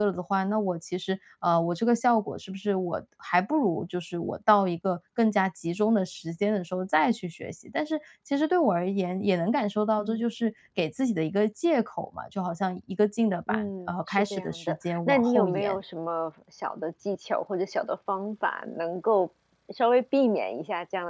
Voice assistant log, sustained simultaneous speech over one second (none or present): present